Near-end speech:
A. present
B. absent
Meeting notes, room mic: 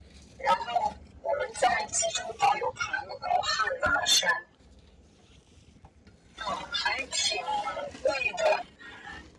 B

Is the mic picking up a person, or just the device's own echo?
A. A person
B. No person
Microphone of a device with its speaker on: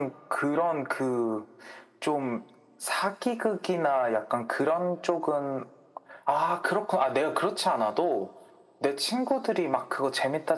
B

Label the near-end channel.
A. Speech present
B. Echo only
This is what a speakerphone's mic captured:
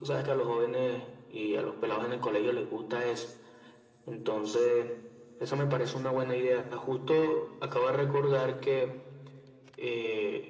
B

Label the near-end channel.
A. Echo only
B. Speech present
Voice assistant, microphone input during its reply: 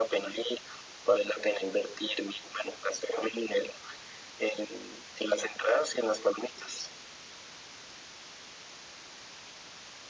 A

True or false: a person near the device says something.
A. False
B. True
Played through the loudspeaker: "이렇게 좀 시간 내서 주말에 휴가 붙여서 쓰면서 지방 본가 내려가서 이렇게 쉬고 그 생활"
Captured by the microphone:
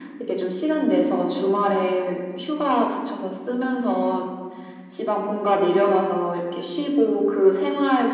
A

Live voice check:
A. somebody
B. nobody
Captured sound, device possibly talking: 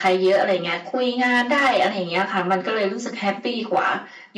B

